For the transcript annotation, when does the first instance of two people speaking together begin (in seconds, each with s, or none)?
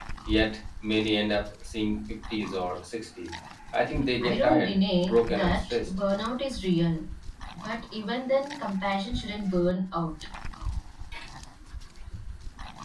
4.2 s